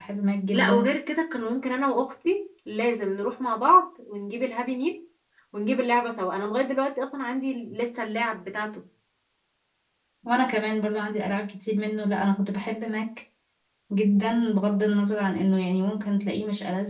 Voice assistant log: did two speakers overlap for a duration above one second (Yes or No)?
No